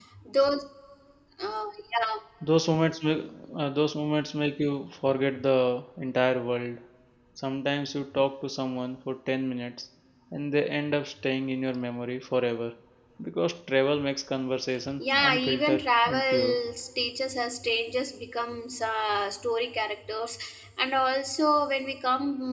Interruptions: present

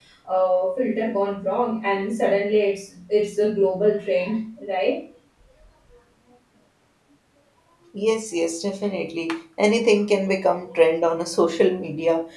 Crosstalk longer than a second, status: none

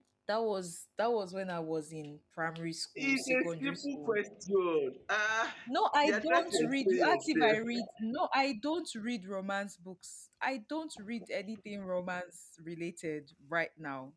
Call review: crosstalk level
present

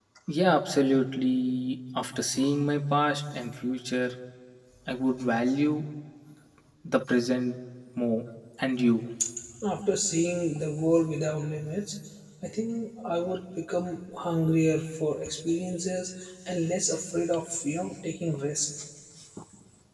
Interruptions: none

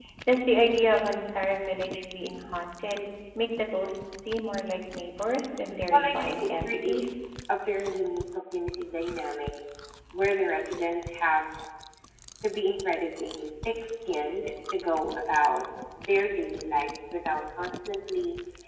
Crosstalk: present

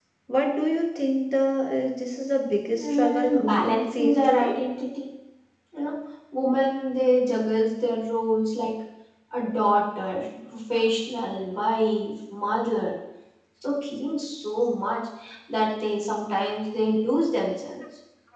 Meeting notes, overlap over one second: present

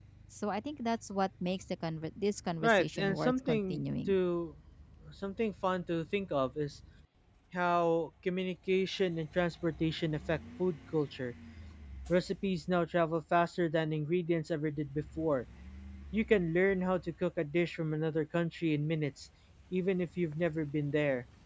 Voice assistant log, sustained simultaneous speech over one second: present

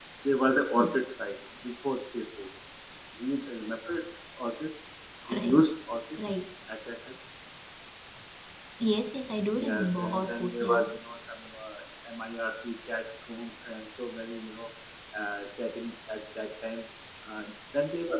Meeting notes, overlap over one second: present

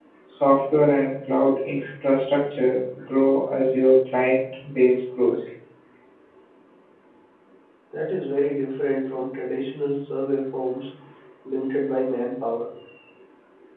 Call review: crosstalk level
none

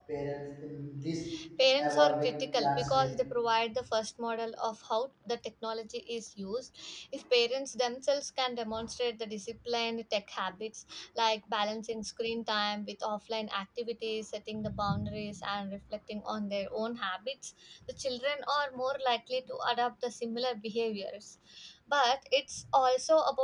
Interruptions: present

